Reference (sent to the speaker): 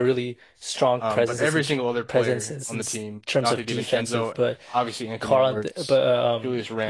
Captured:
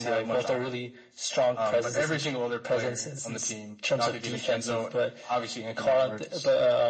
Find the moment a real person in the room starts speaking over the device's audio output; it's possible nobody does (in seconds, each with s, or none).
none